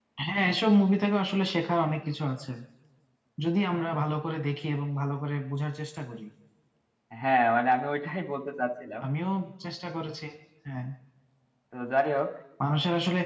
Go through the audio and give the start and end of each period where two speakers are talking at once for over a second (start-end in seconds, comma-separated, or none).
none